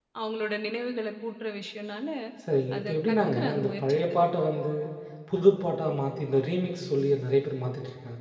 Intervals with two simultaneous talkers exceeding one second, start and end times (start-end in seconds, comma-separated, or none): 2.8-4.0